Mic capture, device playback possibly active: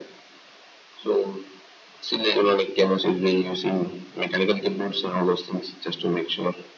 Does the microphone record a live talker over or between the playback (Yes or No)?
No